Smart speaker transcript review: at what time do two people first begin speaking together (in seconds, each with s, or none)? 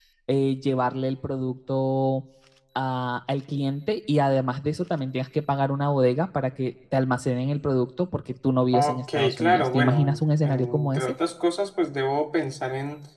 8.7 s